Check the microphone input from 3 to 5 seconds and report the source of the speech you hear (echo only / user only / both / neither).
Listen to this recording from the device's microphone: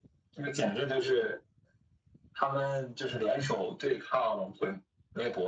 echo only